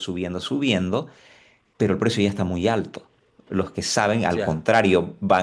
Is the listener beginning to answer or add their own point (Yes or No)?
No